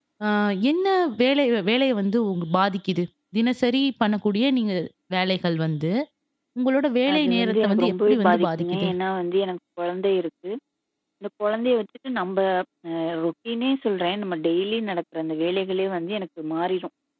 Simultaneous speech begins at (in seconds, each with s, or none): 7.1 s